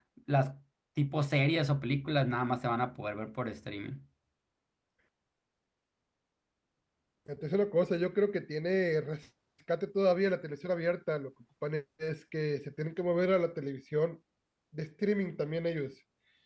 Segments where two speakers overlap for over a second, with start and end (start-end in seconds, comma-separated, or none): none